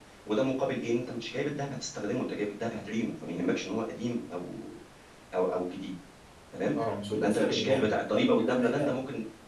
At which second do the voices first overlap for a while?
7.1 s

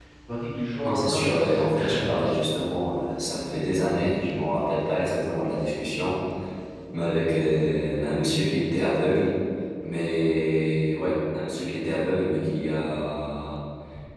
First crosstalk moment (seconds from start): 0.8 s

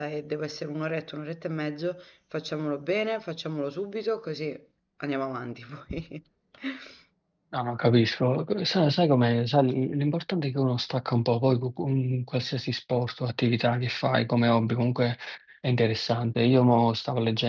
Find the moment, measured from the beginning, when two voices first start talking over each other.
none

